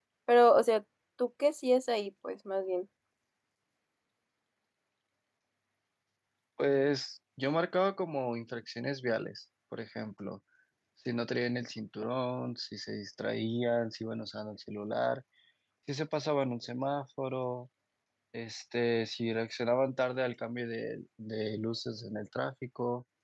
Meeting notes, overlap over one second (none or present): none